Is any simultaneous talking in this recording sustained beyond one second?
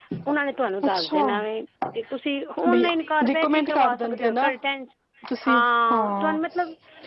Yes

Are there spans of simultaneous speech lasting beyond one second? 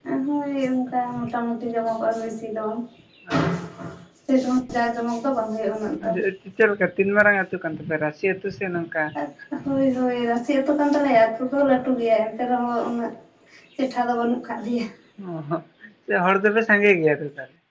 No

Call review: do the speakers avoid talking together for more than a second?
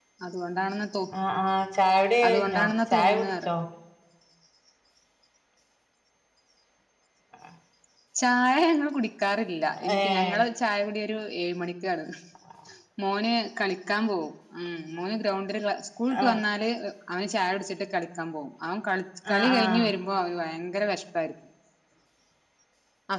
No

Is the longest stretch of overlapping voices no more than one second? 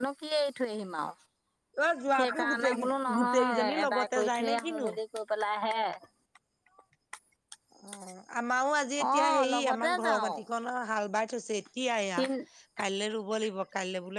No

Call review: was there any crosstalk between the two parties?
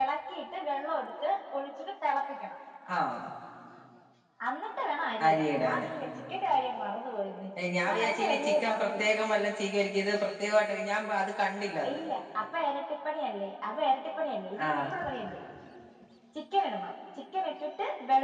Yes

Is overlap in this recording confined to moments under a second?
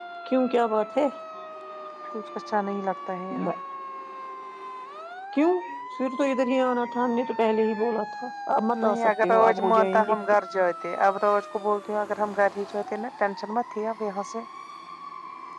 No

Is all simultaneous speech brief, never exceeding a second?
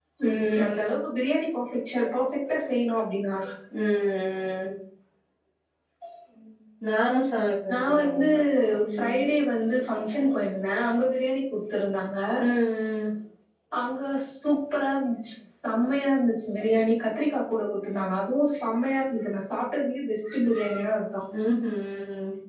Yes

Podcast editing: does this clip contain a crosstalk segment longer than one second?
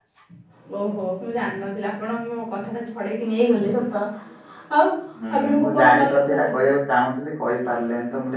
Yes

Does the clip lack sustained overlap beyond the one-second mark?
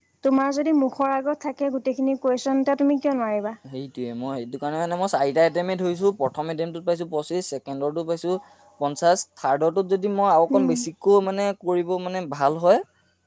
Yes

